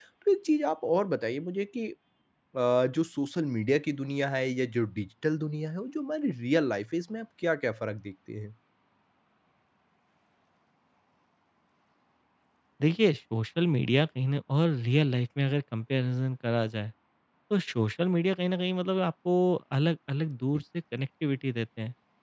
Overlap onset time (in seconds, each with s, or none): none